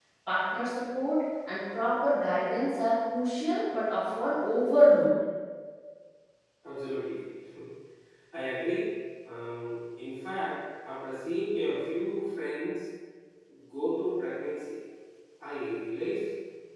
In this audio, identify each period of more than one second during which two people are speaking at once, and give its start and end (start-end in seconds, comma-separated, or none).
none